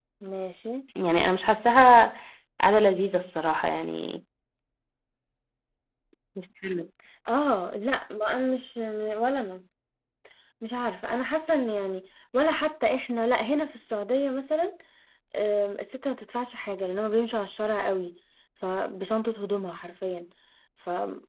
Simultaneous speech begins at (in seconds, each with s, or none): none